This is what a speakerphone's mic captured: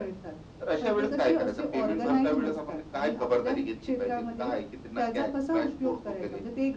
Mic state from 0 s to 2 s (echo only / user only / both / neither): echo only